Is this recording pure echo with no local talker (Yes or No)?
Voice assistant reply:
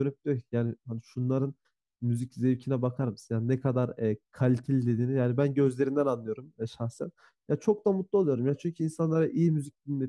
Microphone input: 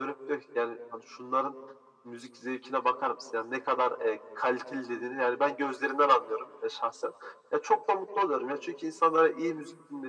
Yes